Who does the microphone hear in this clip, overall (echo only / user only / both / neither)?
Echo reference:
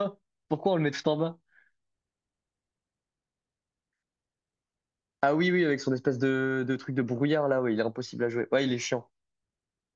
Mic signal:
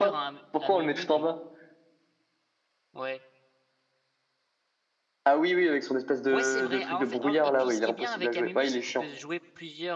both